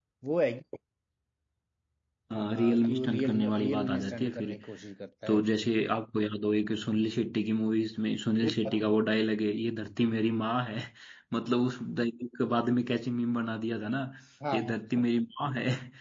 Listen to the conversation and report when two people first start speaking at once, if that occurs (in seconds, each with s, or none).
2.5 s